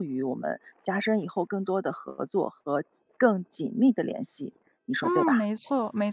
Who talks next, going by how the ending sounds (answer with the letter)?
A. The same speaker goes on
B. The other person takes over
B